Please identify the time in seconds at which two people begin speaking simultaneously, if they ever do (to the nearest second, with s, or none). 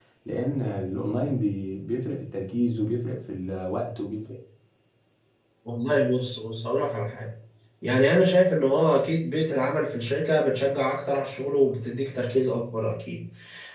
none